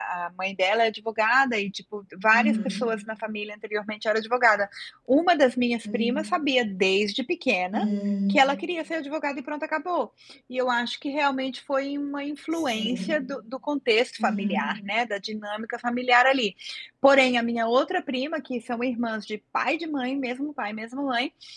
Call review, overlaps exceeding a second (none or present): none